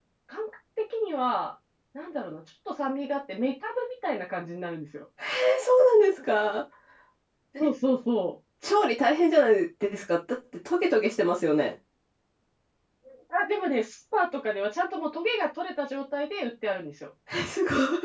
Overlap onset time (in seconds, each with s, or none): none